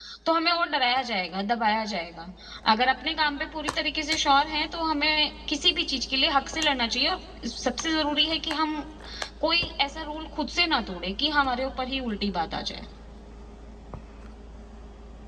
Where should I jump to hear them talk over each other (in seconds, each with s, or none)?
none